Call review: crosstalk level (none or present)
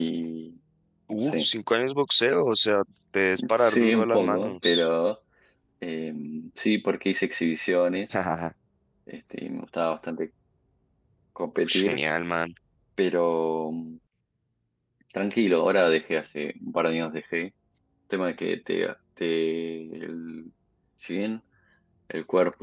present